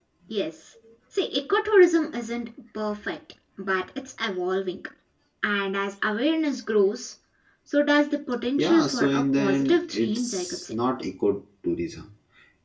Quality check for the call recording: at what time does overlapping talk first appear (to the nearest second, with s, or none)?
9 s